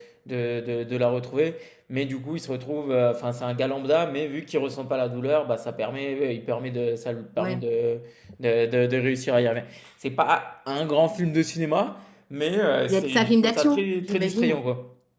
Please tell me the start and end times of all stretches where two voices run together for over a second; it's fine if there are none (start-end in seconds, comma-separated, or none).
12.9-14.6